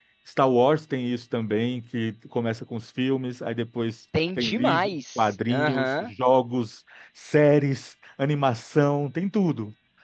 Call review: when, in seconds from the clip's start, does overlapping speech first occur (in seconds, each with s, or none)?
4.1 s